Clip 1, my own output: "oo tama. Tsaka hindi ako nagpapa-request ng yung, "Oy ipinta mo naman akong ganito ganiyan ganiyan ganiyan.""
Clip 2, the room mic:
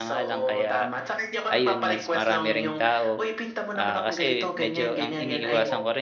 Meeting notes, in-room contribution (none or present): present